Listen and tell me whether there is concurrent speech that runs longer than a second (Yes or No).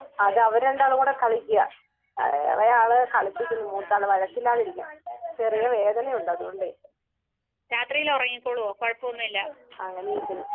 No